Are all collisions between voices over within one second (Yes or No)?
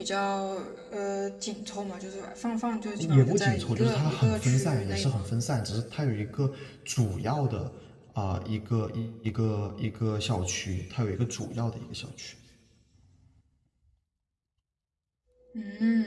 No